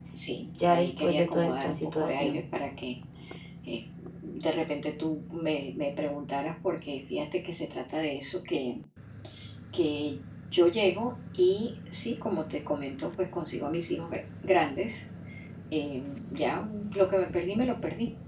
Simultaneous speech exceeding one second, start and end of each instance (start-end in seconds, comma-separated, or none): 0.7-2.4